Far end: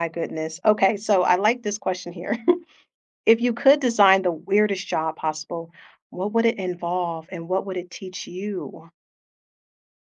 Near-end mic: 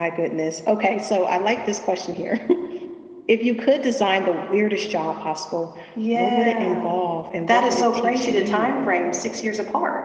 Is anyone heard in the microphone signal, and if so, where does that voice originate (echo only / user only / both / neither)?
both